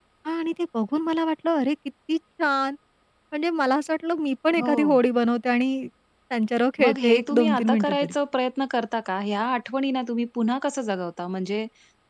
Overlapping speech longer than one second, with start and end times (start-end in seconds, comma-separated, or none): 6.8-8.1